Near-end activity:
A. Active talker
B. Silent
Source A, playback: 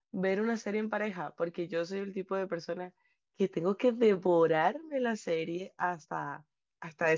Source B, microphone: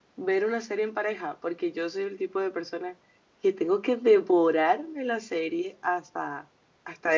B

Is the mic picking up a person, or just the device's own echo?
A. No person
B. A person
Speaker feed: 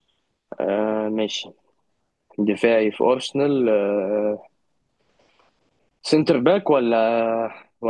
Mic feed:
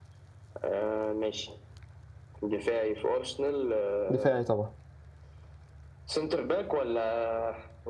B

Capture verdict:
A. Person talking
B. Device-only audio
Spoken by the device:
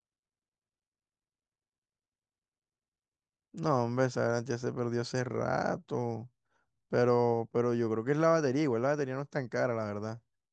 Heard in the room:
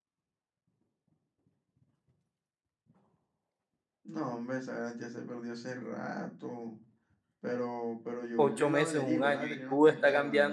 A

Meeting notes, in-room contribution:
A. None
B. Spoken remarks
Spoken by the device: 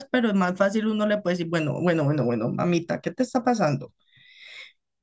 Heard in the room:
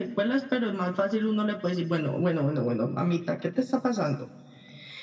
A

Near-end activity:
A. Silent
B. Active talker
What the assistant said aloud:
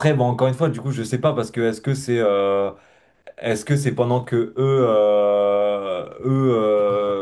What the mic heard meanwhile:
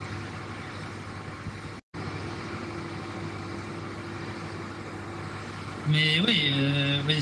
B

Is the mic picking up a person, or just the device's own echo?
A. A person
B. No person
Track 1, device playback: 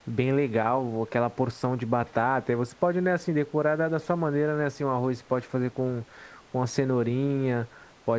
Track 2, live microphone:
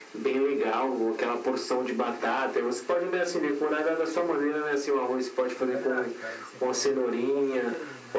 A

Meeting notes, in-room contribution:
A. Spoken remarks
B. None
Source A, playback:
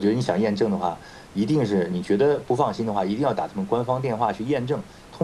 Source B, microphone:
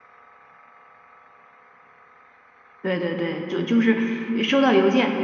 A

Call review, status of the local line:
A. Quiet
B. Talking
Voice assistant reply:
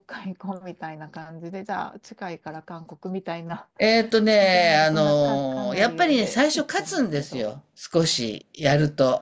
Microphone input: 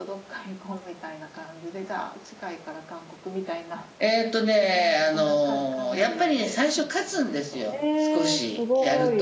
B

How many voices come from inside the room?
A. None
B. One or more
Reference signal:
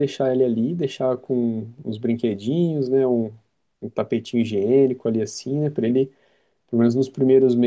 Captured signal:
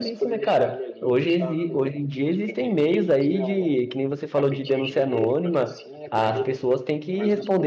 B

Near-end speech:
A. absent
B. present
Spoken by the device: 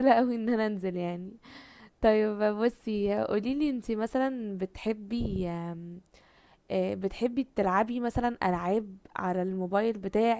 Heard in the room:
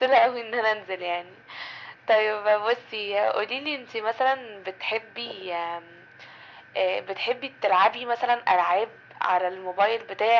A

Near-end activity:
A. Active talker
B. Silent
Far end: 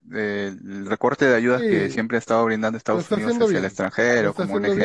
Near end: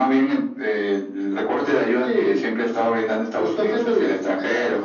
B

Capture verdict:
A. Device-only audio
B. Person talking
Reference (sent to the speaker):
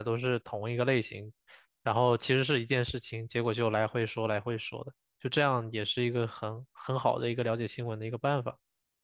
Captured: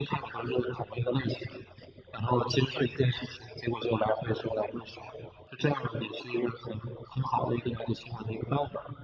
A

